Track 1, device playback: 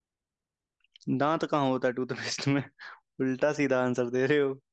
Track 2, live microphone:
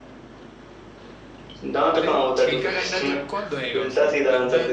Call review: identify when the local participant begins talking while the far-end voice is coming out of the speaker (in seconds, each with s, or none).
2.0 s